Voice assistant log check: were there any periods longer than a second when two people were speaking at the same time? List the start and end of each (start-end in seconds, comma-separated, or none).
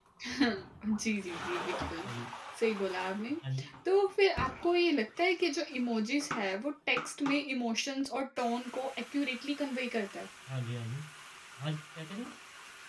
none